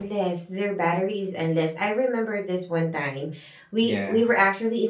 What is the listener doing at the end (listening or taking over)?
listening